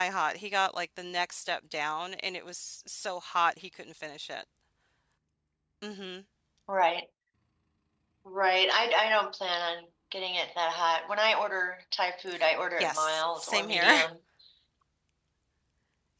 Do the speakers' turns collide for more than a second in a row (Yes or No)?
Yes